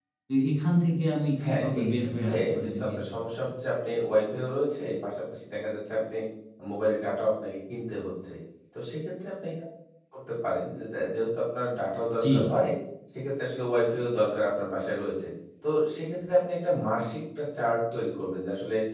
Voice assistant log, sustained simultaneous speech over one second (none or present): present